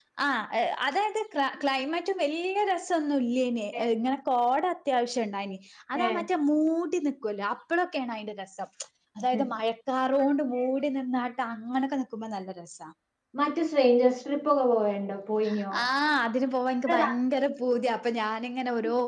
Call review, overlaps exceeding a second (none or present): none